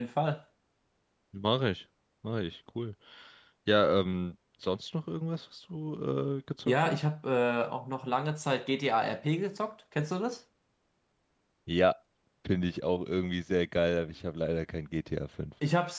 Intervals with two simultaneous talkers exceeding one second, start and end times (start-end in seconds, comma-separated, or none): none